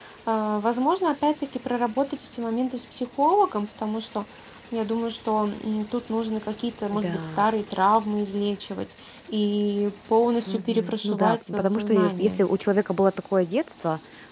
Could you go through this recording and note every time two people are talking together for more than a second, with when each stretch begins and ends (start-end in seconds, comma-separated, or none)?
10.5-12.4